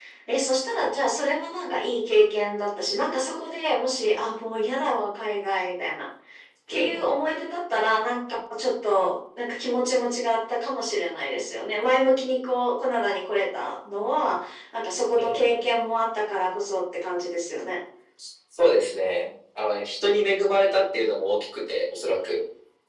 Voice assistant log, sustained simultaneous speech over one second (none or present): none